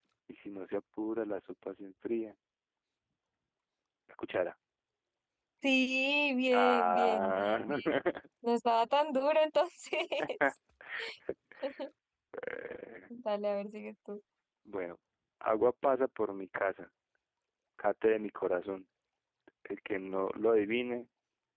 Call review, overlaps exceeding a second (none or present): present